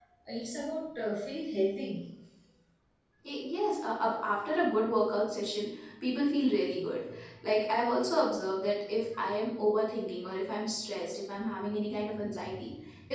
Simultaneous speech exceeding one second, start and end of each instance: none

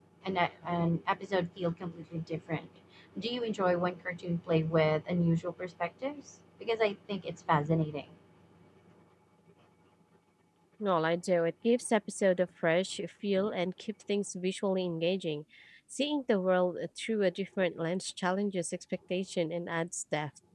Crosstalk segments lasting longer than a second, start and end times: none

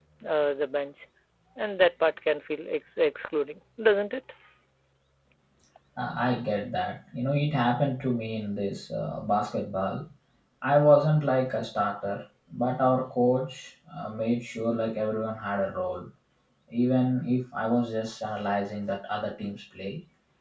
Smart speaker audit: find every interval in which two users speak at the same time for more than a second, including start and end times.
none

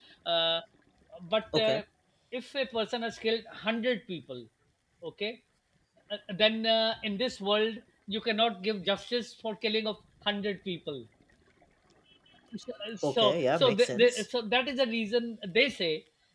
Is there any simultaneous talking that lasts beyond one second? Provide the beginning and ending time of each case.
13.0-14.2

